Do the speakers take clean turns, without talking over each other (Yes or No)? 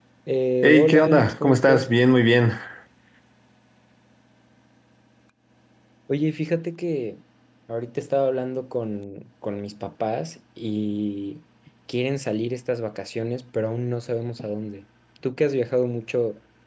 No